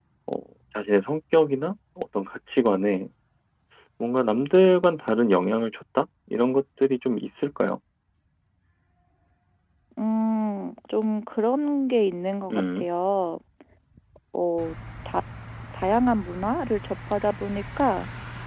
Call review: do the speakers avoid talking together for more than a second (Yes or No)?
Yes